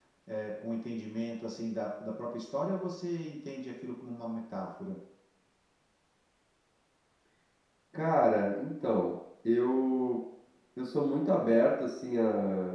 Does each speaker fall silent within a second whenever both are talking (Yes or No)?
Yes